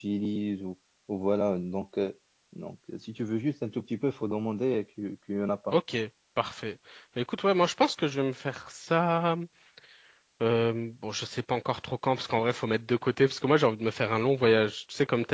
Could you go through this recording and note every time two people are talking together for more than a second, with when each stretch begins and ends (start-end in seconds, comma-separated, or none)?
none